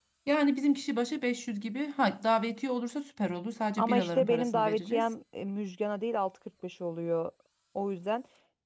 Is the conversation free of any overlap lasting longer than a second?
No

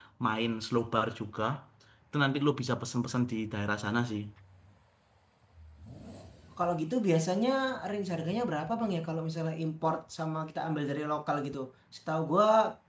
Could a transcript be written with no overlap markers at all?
Yes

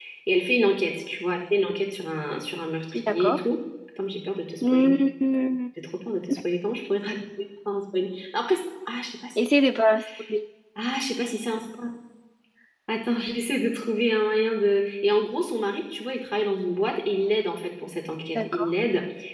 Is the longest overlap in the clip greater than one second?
No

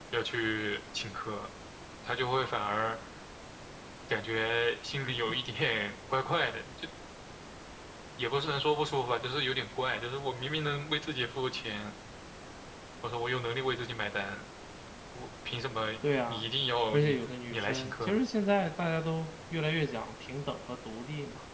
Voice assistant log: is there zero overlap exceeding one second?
No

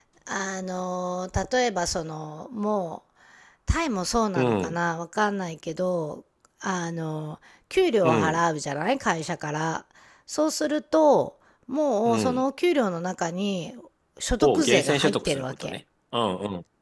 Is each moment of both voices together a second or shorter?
No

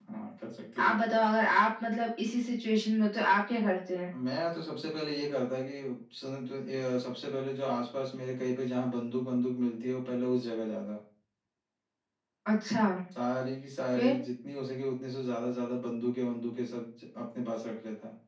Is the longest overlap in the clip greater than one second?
No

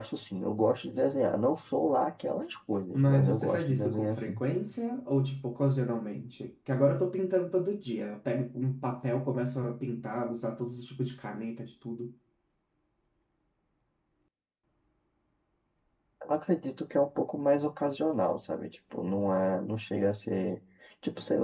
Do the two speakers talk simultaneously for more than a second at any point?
Yes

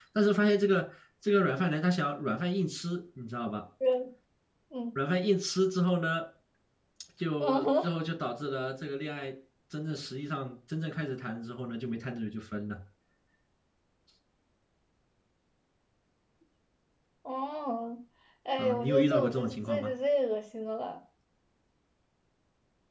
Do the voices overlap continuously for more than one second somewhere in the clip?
Yes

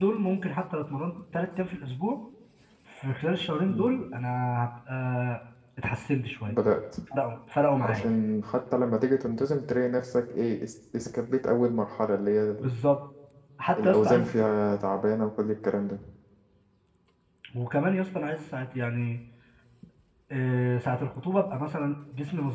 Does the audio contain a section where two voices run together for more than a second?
No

